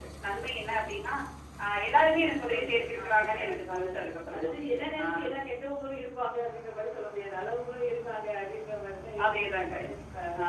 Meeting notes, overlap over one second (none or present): present